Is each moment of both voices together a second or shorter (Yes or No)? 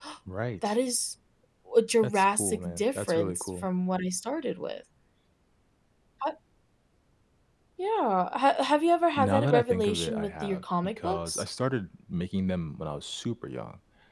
No